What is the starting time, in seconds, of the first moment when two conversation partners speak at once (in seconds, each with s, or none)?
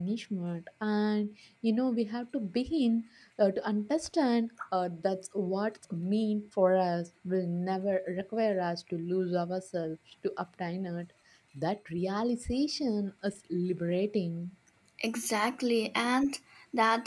none